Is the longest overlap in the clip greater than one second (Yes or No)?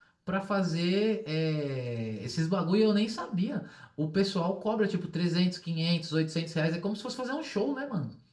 No